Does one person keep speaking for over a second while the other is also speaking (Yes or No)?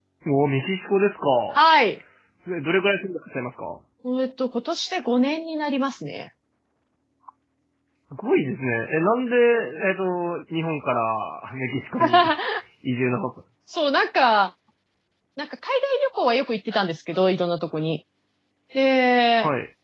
No